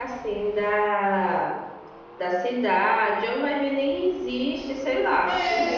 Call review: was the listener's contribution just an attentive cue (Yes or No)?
No